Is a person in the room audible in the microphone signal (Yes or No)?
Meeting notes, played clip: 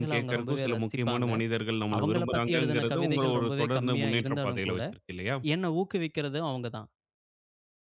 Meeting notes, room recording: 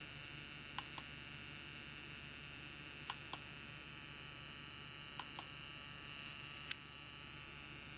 No